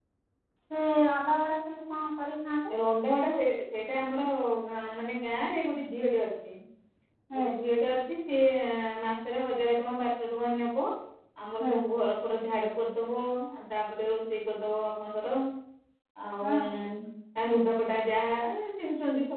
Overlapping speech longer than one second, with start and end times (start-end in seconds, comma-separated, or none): none